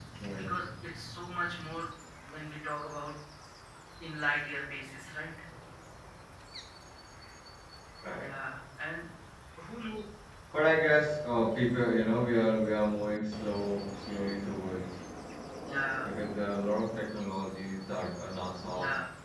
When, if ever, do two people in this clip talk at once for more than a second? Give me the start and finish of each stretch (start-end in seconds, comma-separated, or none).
none